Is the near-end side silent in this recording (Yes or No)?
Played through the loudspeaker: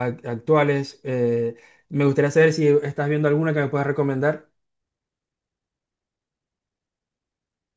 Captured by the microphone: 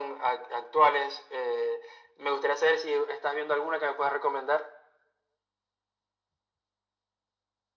Yes